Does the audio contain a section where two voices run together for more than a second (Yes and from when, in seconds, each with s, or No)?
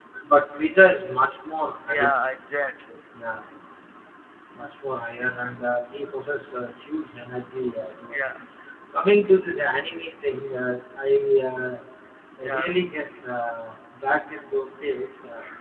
No